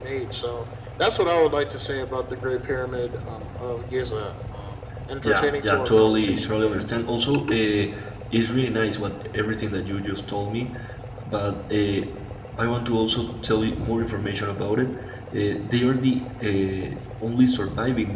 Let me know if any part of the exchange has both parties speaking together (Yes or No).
Yes